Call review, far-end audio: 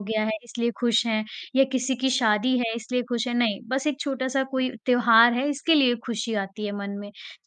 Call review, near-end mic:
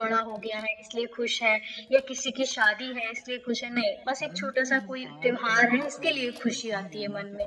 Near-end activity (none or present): present